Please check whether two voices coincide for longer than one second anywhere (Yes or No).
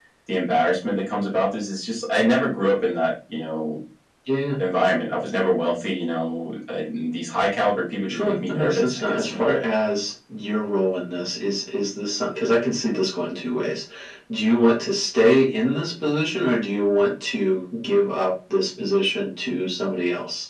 Yes